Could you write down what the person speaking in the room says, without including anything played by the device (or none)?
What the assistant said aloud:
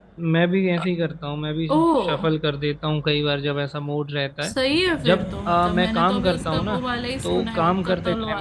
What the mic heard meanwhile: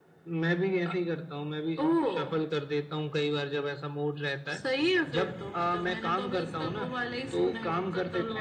none